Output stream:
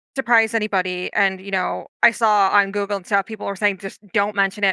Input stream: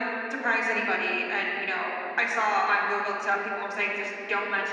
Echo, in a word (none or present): present